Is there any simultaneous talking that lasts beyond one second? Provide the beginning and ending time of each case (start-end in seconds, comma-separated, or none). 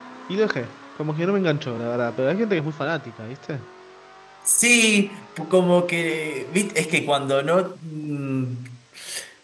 none